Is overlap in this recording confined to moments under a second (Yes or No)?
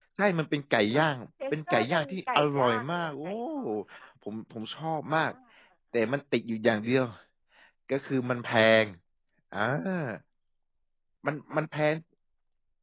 No